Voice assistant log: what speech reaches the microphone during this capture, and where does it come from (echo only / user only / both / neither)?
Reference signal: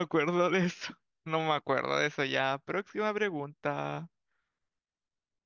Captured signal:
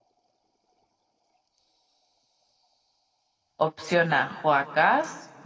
user only